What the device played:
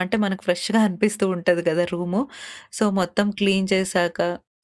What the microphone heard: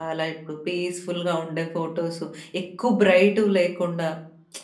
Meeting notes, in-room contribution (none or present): present